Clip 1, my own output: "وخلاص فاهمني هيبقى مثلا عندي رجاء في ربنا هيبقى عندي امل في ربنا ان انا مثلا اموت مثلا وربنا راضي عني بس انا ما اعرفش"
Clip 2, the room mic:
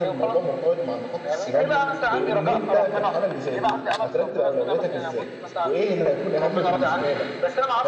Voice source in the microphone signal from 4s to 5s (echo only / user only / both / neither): both